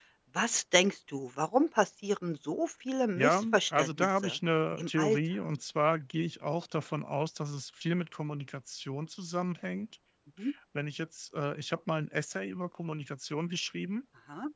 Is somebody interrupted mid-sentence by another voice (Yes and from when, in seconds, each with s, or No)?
Yes, from 3.2 s